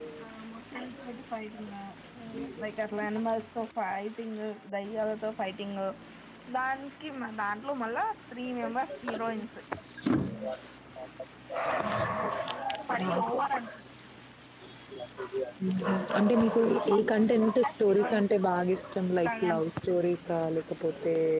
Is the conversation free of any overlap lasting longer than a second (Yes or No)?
No